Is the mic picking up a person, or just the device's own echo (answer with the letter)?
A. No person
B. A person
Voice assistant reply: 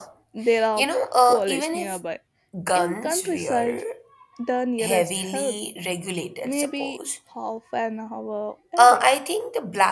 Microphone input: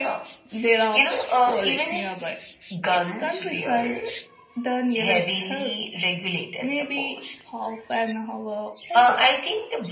A